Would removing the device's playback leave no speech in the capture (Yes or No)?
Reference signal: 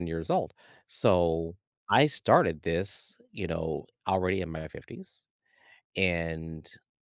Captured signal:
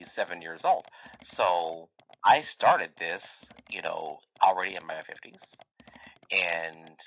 Yes